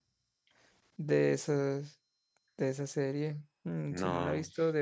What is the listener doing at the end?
listening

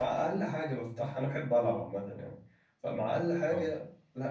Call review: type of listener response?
listening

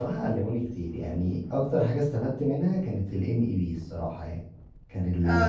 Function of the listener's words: taking over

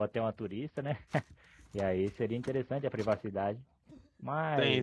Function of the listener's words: taking over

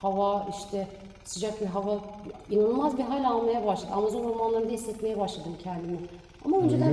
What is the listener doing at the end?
taking over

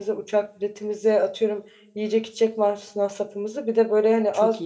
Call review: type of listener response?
listening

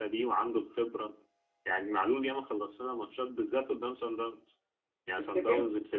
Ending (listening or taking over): listening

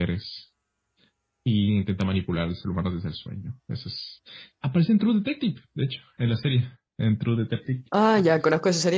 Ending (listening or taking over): taking over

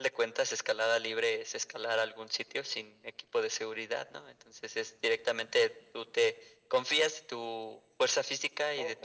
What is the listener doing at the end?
taking over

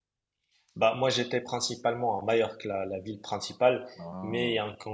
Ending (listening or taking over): listening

